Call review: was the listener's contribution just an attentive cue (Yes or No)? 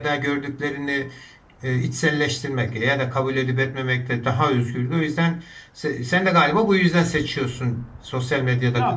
No